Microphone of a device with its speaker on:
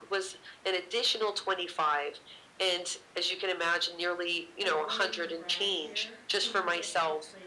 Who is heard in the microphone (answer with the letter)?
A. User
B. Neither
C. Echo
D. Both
D